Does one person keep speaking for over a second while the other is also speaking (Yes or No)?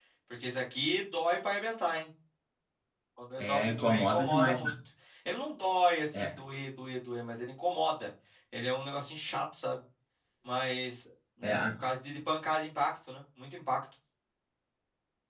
Yes